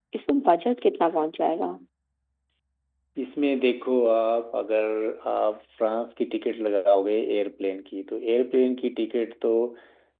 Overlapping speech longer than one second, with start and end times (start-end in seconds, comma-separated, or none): none